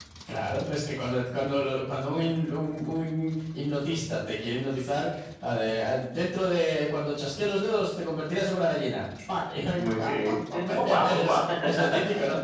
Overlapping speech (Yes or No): Yes